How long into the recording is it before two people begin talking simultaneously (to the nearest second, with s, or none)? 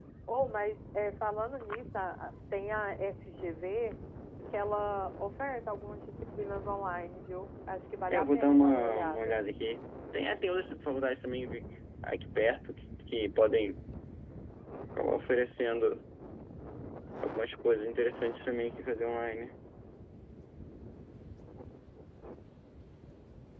8 s